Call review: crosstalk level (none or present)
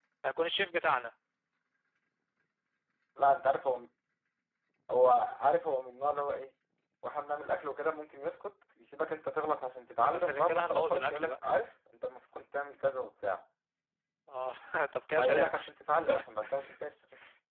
present